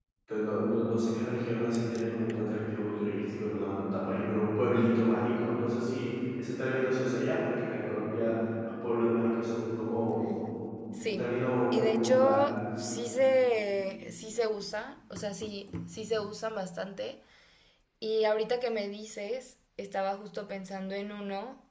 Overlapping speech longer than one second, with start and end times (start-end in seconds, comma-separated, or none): 11.1-12.4